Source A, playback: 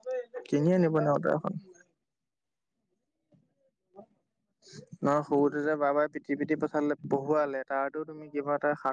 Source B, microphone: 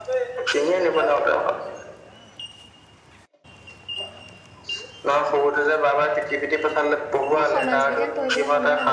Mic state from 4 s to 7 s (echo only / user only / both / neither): echo only